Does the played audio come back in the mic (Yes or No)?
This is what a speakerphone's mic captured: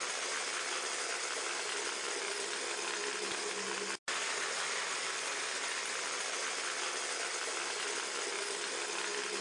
No